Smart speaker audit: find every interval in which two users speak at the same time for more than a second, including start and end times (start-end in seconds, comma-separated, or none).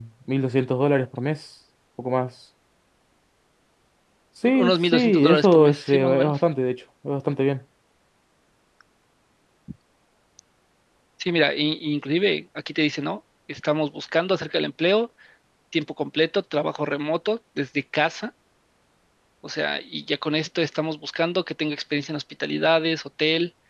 4.5-6.4